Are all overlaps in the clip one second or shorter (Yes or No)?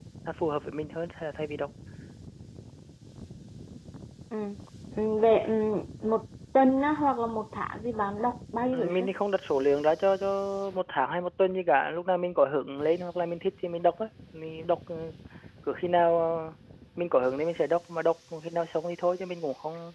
Yes